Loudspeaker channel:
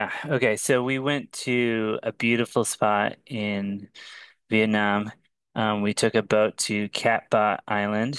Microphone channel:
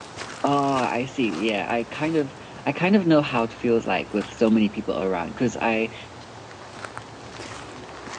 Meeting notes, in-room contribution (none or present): present